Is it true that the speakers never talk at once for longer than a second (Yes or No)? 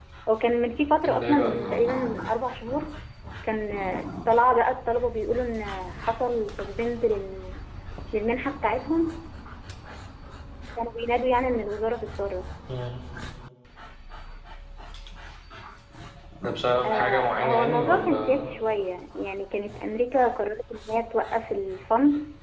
No